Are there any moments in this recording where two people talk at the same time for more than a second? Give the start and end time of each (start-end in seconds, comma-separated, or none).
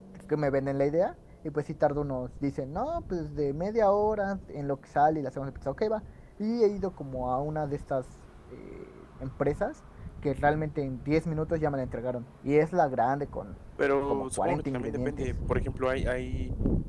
14.1-15.3